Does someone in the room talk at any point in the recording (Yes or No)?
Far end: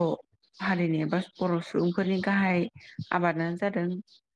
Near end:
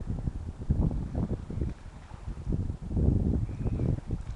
No